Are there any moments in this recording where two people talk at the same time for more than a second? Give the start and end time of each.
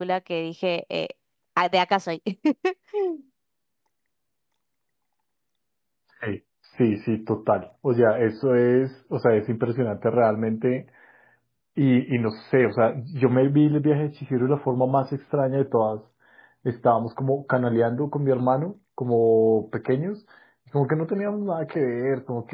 none

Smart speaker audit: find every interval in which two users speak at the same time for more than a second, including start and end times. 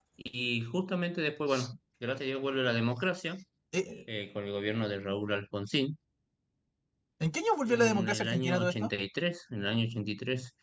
7.7-8.9

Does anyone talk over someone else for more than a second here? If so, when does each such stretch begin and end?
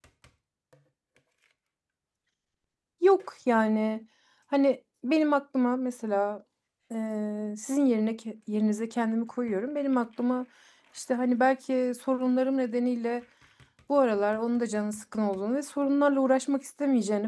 none

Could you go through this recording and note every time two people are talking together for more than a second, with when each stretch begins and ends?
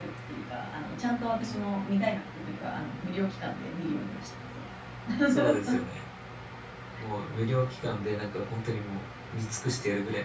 none

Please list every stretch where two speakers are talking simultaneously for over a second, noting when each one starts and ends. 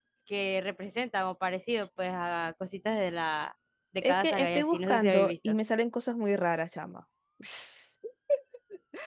4.0-5.5

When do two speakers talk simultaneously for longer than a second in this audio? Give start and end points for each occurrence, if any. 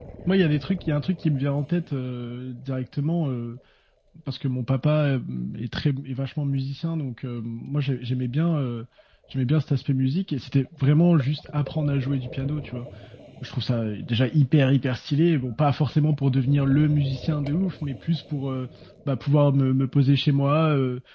none

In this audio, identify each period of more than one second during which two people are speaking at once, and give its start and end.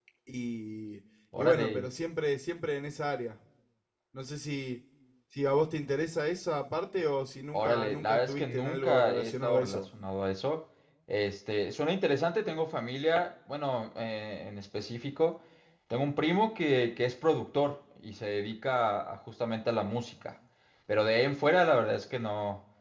7.5-9.8

